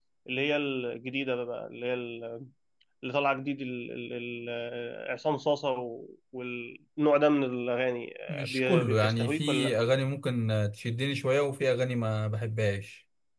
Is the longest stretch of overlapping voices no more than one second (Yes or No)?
No